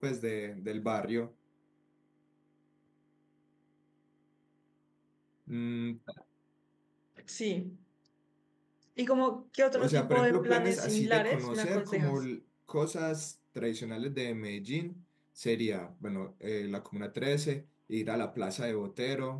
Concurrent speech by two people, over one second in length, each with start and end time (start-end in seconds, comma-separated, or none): 9.8-12.2